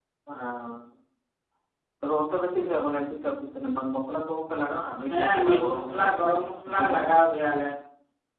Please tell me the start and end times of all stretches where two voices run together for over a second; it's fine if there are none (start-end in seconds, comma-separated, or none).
5.1-7.1